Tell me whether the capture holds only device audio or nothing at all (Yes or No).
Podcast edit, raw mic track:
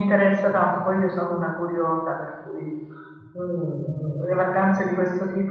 Yes